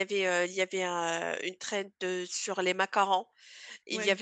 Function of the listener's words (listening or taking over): listening